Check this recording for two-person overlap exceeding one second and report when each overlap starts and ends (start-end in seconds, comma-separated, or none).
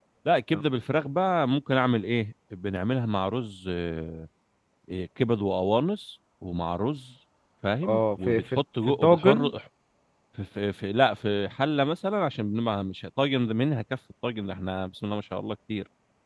7.8-9.5